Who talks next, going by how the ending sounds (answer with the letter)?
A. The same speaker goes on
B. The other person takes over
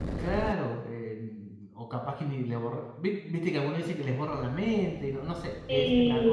A